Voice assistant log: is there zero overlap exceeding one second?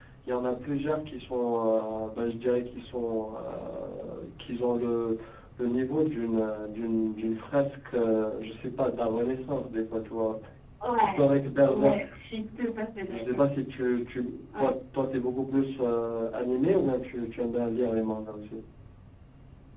Yes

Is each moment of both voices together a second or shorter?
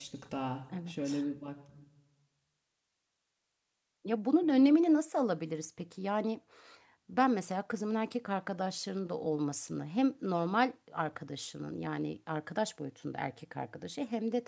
Yes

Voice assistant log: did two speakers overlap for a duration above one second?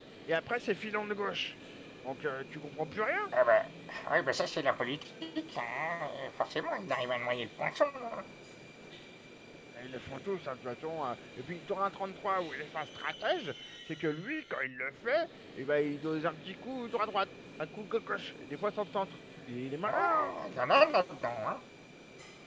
No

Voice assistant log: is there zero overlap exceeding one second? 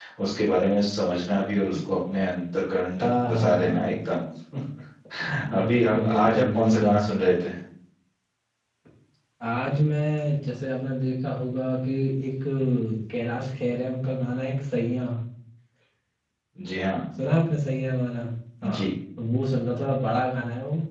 No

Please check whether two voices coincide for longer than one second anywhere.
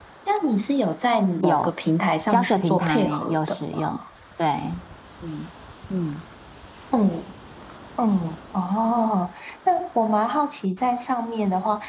Yes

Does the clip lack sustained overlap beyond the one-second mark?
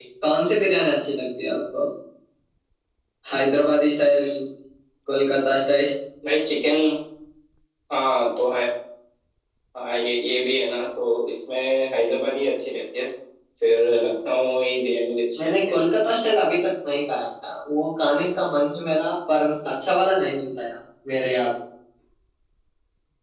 Yes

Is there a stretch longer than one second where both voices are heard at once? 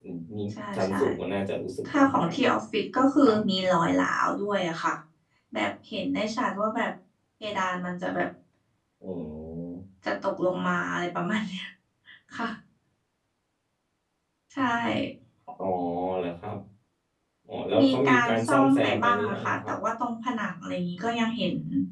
Yes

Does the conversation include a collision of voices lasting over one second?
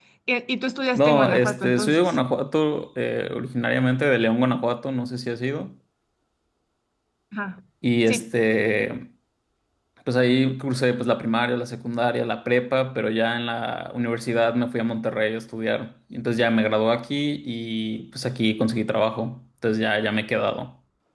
Yes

